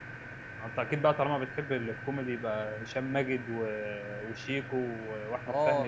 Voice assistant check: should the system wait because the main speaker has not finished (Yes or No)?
No